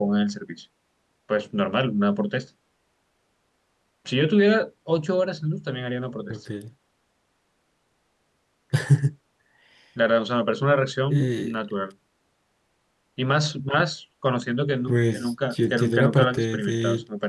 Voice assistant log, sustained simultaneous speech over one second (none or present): present